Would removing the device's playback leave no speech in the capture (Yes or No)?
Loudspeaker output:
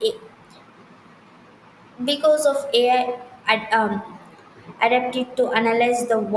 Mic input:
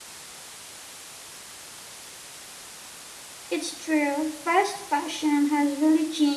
No